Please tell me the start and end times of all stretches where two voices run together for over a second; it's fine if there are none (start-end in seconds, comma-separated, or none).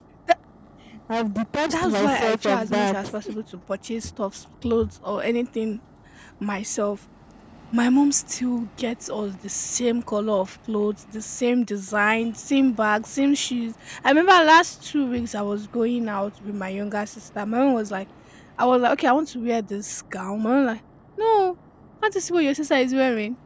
1.7-3.1